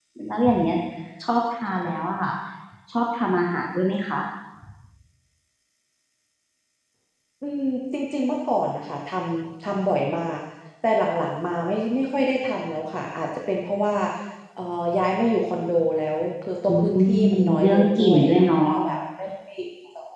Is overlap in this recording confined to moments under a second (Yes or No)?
No